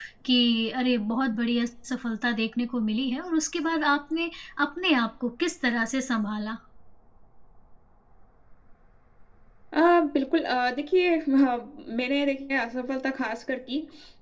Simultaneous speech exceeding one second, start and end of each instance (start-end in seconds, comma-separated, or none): none